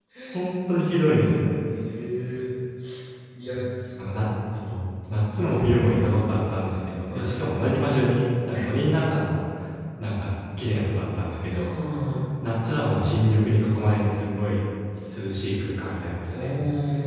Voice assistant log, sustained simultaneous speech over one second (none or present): none